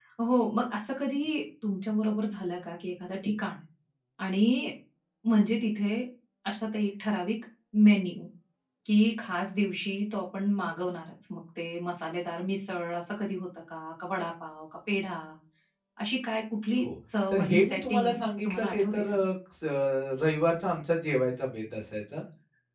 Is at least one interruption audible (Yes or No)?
Yes